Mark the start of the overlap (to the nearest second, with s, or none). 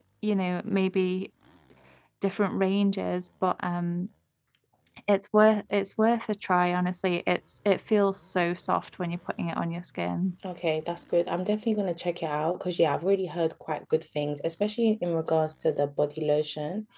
none